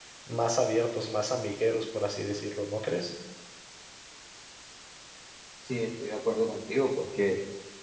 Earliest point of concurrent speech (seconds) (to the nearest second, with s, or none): none